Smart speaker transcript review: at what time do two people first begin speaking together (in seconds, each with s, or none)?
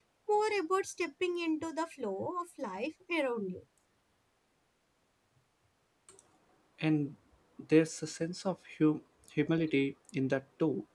none